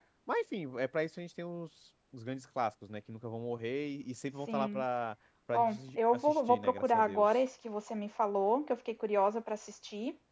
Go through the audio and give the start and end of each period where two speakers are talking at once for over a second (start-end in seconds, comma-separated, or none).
5.5-7.2